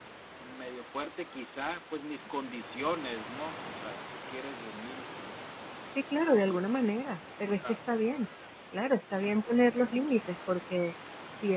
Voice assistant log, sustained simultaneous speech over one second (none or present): none